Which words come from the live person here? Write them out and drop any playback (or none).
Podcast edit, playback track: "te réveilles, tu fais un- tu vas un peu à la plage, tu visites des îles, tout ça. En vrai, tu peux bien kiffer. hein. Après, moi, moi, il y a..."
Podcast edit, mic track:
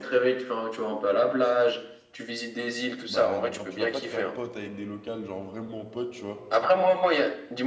bah, genre, tu vas pas te faire pote avec des locales, genre vraiment pote, tu vois.